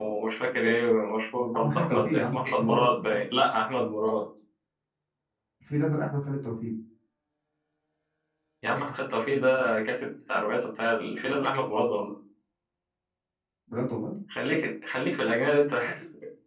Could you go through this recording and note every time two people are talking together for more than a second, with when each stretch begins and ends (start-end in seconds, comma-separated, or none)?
1.5-3.2